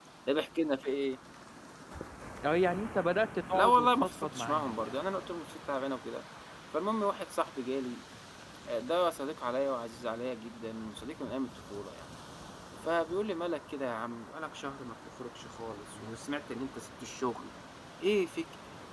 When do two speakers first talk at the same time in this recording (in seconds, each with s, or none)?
3.5 s